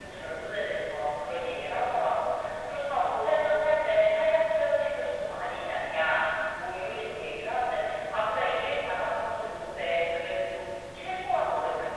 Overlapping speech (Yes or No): No